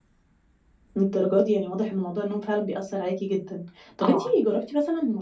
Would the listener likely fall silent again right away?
Yes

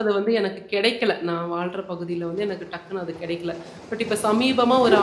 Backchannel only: Yes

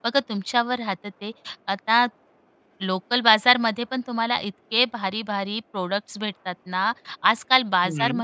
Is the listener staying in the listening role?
Yes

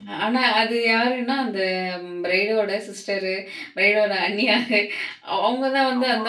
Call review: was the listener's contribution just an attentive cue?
Yes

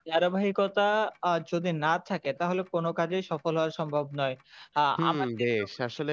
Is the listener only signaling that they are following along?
No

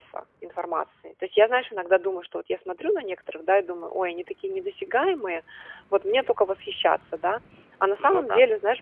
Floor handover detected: No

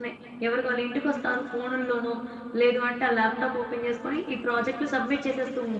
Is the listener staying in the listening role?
No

